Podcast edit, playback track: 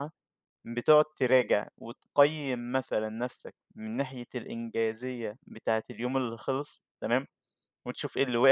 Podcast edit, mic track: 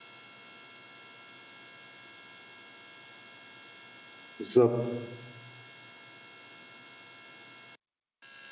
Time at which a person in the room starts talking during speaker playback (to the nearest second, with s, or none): 4 s